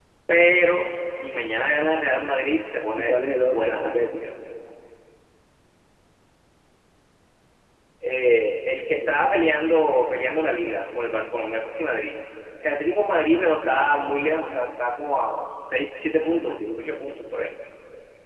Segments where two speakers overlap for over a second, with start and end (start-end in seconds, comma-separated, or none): 3.0-4.3, 16.2-17.4